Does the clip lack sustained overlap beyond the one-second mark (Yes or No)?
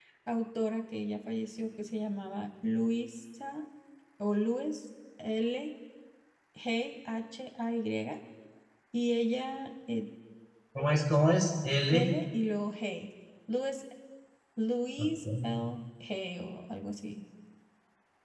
Yes